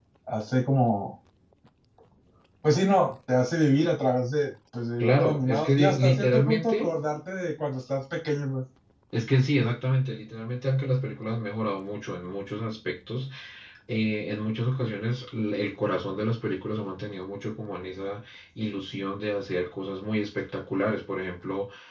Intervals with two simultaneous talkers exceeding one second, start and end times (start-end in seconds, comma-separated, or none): 5.0-6.9